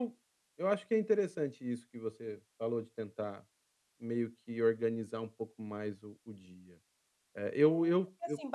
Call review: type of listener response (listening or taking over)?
taking over